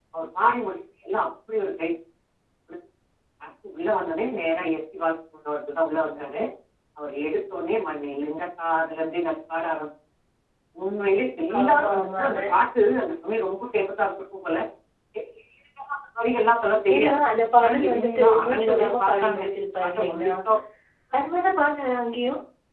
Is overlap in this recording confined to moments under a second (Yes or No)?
No